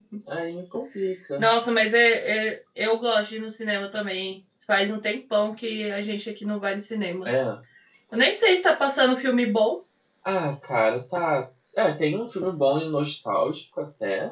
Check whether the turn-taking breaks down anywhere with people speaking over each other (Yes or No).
No